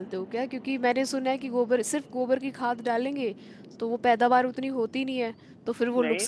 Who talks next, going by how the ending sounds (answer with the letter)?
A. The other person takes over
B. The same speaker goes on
A